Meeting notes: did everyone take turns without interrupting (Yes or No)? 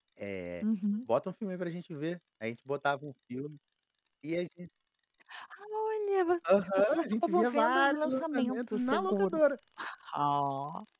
No